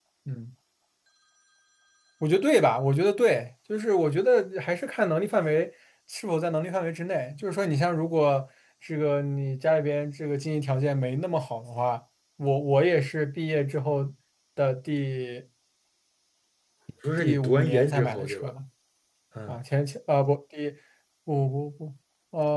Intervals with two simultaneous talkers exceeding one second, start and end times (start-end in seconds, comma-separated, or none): 17.2-18.5